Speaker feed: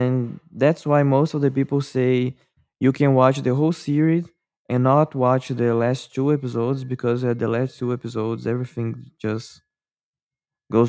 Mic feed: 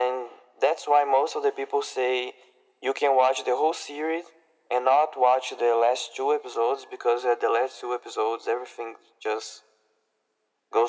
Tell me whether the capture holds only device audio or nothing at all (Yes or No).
Yes